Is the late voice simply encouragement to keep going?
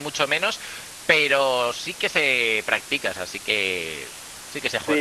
No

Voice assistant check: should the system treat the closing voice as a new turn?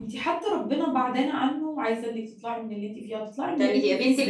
Yes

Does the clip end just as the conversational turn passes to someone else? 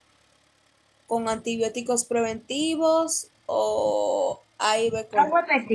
Yes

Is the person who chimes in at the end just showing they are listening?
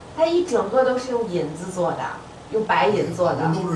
No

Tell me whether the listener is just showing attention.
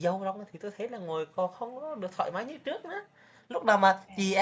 Yes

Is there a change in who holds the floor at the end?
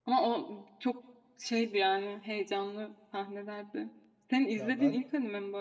No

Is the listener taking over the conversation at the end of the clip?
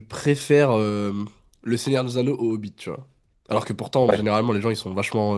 No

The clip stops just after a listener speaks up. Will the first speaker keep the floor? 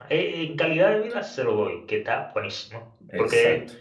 Yes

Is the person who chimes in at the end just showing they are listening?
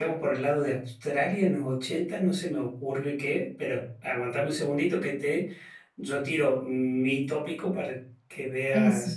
Yes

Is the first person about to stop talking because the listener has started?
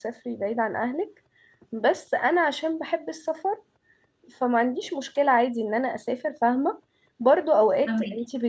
No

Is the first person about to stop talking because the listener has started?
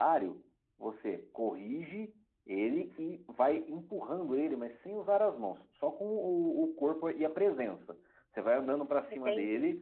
No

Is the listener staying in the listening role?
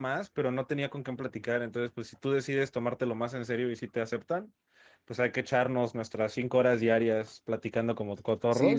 No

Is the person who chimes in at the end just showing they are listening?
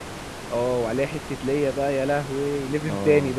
No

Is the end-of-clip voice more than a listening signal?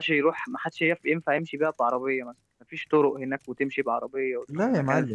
Yes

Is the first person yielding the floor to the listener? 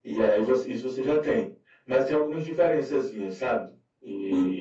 Yes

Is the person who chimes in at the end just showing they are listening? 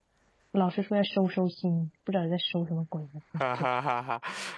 No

